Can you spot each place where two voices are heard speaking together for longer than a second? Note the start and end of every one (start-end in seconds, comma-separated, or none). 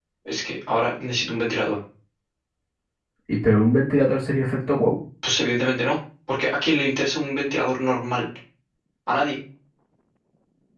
none